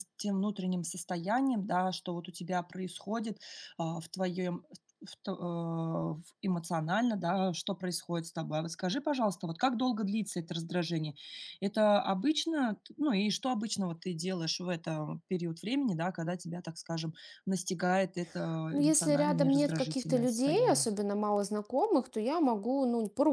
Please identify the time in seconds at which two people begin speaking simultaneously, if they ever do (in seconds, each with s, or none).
18.8 s